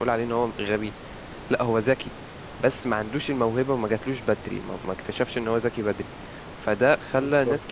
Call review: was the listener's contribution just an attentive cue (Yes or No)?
Yes